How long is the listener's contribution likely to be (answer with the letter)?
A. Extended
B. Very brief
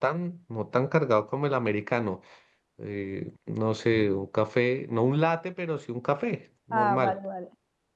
A